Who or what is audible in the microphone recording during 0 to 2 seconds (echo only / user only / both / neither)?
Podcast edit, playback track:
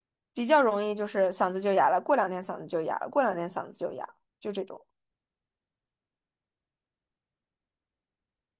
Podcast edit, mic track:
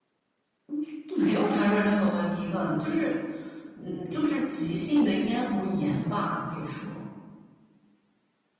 user only